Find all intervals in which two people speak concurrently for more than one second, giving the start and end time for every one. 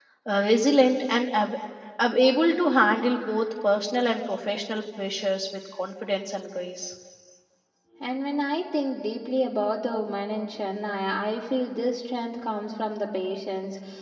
none

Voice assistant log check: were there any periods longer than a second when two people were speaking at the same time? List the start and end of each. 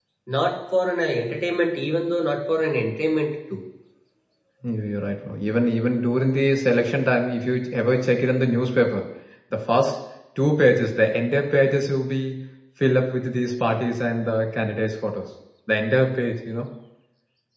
none

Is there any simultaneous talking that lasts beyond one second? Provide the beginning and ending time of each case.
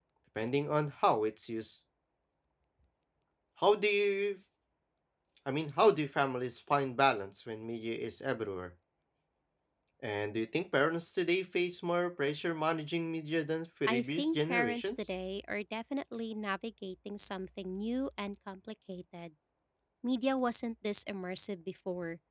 13.9-15.1

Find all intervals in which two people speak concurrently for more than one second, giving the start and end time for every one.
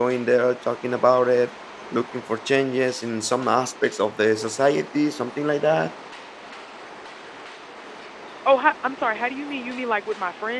none

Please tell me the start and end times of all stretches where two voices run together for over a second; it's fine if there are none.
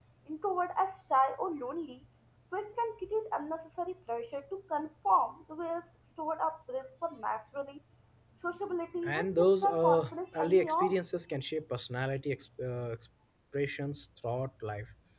9.0-11.0

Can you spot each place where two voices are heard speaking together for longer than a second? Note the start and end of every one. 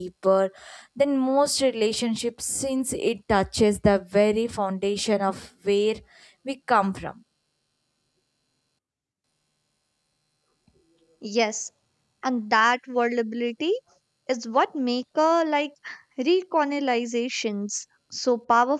none

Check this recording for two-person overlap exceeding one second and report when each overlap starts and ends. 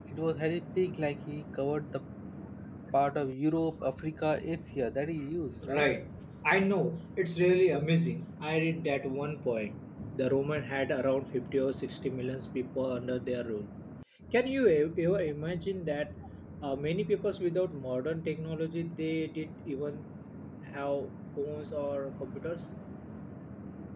none

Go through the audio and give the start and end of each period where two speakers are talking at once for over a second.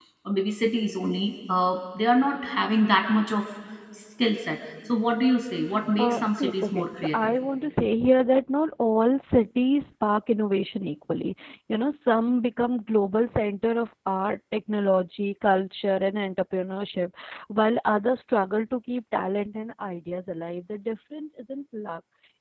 6.0-7.3

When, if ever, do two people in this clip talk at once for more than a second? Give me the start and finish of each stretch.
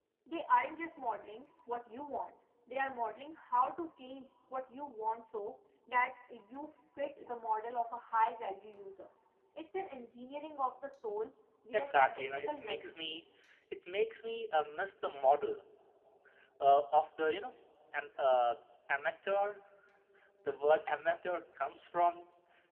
11.7-13.0

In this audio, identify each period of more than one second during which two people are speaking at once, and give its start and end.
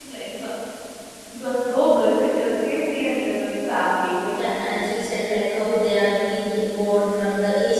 none

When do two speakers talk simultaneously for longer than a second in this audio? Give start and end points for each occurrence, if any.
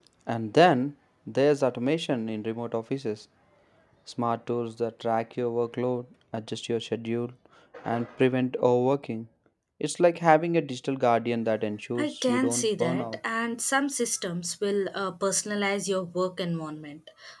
12.0-13.2

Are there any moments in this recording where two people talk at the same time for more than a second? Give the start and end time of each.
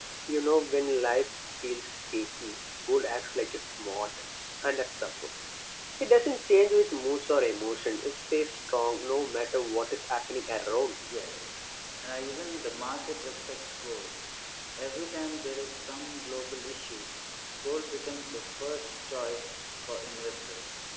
none

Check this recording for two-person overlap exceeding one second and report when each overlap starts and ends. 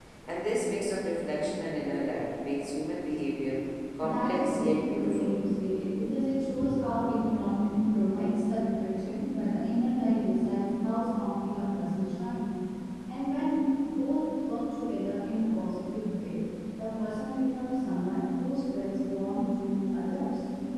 4.0-5.3

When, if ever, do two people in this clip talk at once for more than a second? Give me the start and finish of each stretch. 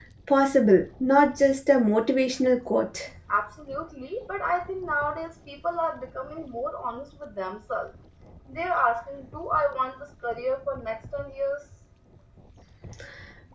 none

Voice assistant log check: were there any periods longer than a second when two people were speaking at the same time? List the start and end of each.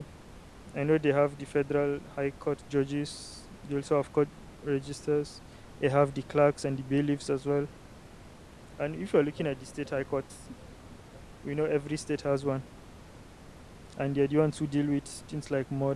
none

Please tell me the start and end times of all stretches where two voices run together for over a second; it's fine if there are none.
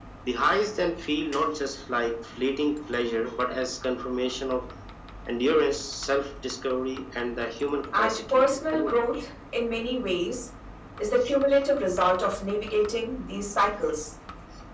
7.9-9.1

